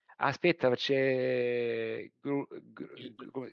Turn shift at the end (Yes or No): Yes